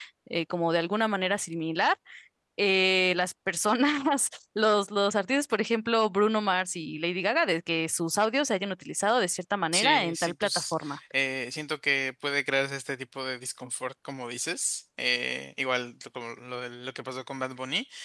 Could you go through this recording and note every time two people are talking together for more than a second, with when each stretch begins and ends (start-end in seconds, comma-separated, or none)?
9.7-11.0